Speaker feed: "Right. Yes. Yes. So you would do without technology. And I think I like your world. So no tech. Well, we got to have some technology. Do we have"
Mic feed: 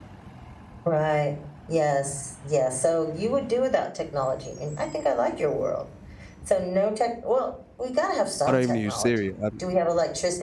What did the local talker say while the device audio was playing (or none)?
I don't even use Siri. I'm